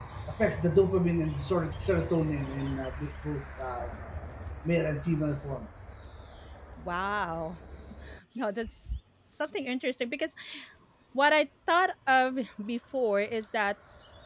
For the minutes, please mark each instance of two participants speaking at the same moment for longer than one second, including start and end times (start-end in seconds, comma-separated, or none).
none